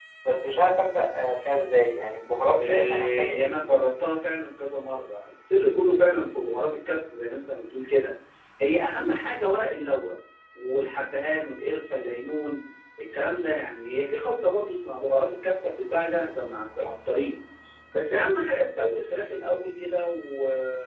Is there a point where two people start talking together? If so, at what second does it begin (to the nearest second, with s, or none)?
3 s